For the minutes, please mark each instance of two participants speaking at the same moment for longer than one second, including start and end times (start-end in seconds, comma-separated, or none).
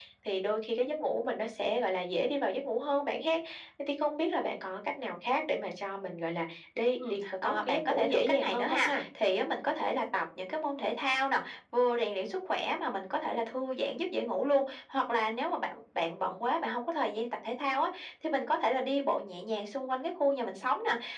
7.1-9.0